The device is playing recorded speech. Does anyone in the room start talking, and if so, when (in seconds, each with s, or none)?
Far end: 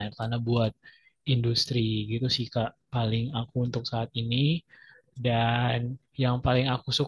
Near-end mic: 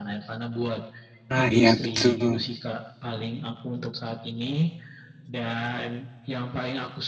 1.3 s